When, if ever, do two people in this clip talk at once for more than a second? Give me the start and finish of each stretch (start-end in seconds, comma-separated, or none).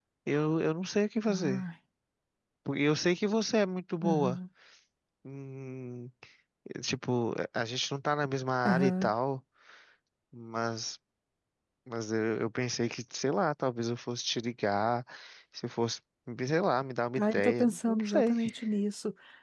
17.2-18.4